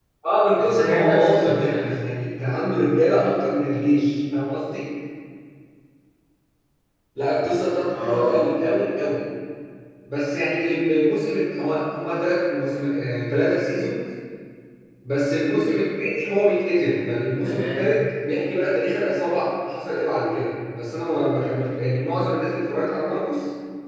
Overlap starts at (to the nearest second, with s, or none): 1 s